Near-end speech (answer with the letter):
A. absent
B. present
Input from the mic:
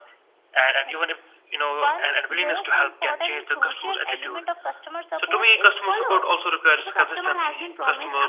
A